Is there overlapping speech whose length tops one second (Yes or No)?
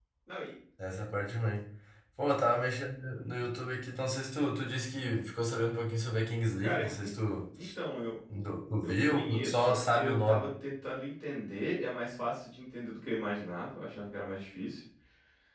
Yes